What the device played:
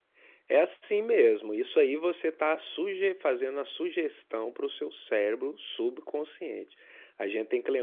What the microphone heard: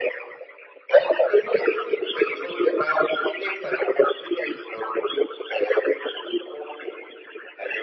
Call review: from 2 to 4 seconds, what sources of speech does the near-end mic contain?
echo only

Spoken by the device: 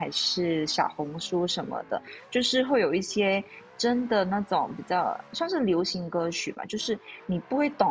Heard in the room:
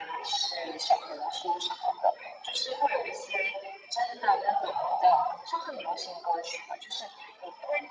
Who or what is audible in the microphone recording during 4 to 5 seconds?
echo only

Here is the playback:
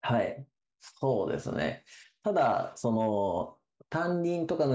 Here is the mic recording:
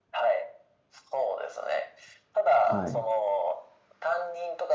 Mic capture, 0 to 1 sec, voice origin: echo only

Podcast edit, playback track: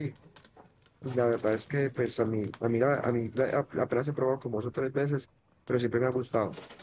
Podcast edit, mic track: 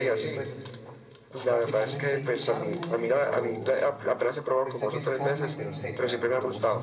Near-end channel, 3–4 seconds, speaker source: both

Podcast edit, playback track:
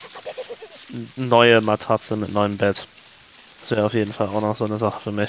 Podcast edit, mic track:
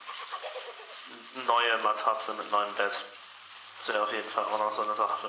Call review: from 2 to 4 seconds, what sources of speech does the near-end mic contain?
echo only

